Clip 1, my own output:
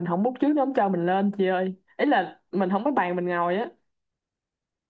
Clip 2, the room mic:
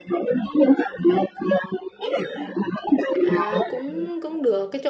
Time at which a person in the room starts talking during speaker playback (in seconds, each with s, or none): 3.2 s